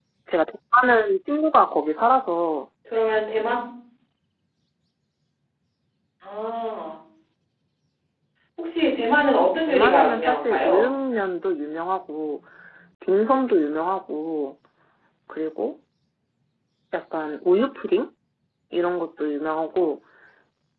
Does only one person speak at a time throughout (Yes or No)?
No